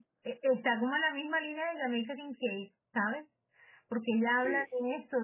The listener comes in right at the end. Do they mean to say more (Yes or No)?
No